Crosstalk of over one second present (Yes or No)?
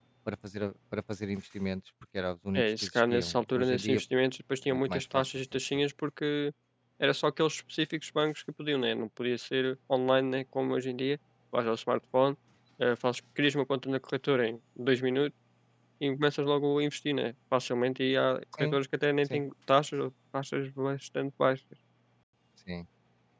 Yes